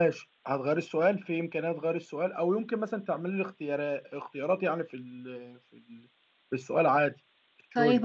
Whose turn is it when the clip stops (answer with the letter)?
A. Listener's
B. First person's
A